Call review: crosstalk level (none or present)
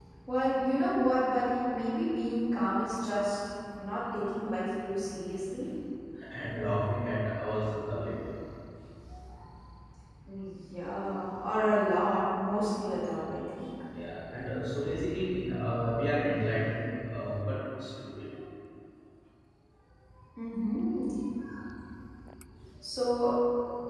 none